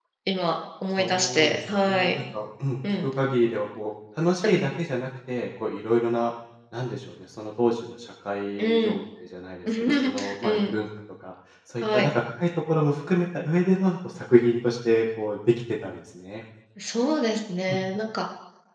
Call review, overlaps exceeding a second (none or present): present